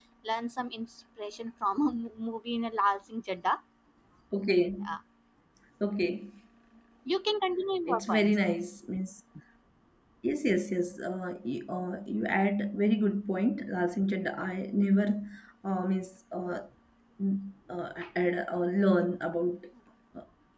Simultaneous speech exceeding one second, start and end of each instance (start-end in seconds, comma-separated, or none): none